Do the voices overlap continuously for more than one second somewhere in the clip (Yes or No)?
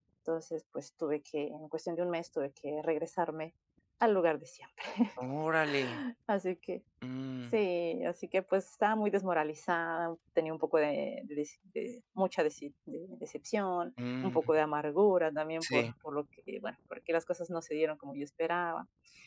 No